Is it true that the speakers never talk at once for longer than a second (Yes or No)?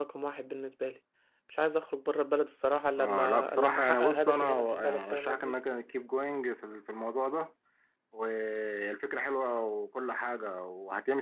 No